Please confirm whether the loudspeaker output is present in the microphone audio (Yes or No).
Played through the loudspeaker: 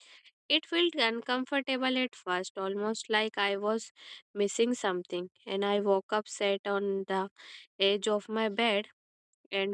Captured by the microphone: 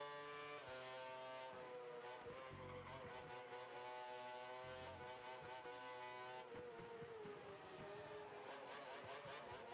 No